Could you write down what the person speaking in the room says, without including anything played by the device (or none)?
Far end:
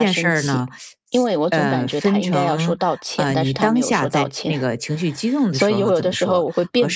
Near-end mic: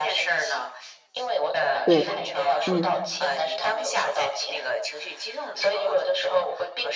对，嗯